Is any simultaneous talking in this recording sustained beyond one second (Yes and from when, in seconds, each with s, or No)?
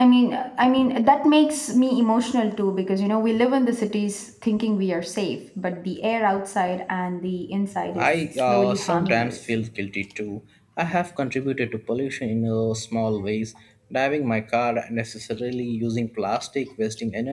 Yes, from 7.9 s